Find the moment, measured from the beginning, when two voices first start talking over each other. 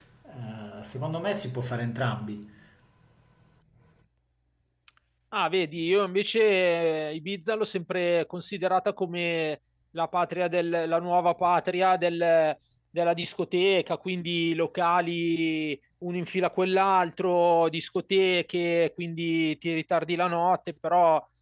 none

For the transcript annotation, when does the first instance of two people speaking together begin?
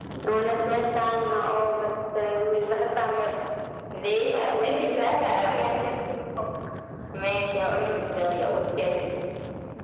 4.5 s

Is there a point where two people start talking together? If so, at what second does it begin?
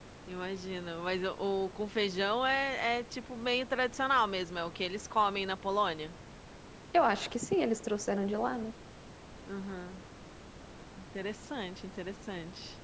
none

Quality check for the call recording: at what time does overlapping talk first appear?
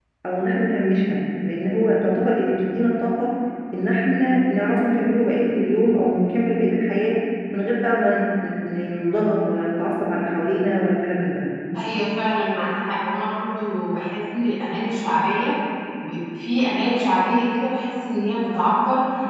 none

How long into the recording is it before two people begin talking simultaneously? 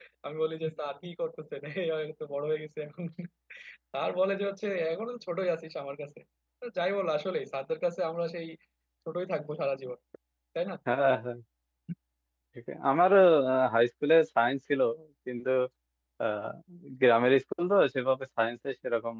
none

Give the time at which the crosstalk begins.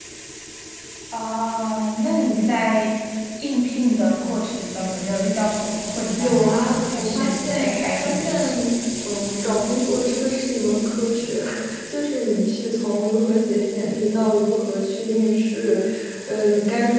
6.2 s

